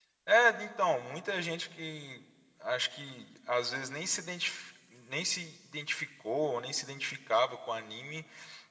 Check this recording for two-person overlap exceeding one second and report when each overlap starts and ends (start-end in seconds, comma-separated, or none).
none